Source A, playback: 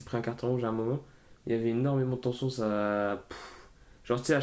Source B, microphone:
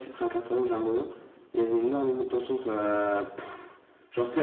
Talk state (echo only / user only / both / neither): echo only